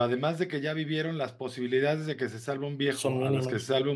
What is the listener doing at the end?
listening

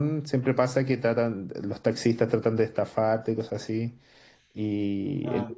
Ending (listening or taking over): listening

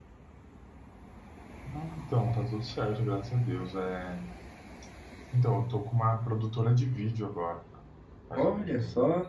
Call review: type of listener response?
taking over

